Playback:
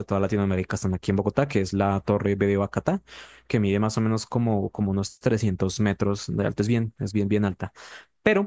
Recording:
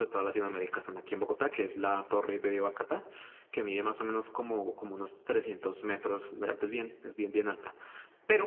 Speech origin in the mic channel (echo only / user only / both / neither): echo only